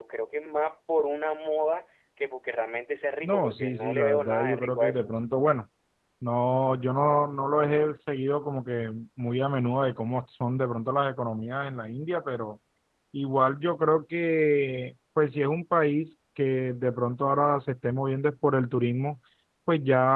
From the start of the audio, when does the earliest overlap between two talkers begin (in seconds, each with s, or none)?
3.2 s